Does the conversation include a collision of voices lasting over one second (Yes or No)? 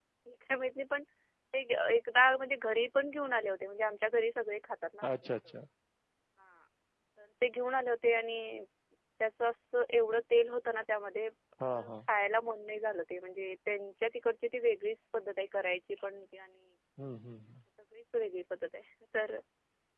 No